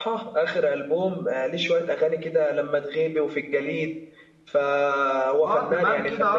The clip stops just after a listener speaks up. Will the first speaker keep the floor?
No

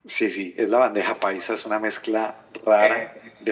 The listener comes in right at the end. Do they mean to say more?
No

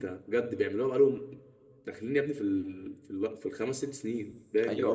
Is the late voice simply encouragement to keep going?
No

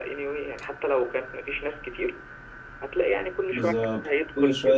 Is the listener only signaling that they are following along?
No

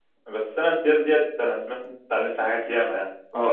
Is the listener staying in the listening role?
No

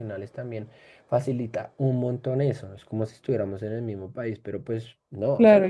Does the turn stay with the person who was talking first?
No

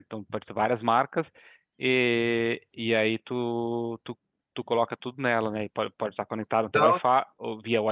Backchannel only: Yes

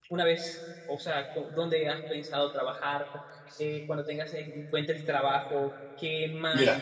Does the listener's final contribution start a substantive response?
No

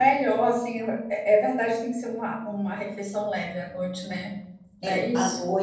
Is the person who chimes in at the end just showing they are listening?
No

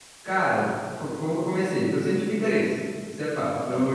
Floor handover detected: No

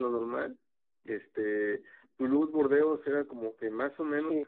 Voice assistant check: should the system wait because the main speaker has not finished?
No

